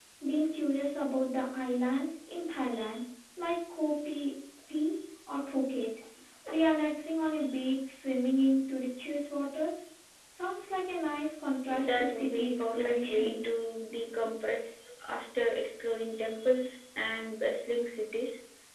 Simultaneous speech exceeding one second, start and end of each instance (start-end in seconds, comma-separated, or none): 11.8-13.3